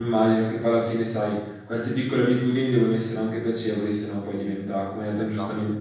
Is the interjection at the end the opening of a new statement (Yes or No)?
No